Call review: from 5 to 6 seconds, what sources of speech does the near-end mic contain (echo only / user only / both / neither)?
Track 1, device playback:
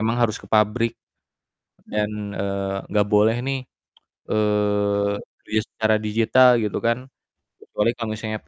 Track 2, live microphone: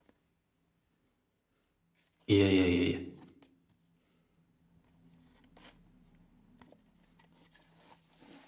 neither